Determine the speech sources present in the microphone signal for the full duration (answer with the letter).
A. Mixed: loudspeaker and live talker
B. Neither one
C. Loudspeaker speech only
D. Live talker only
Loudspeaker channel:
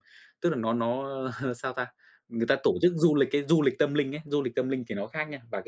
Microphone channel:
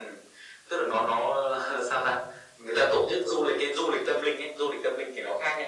C